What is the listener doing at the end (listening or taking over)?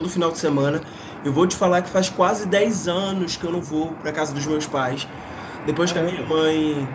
listening